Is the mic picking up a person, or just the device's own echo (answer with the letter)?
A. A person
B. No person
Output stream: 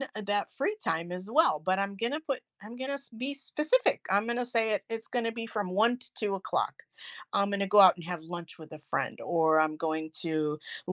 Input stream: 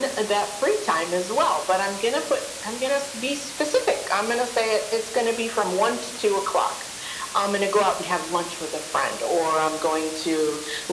B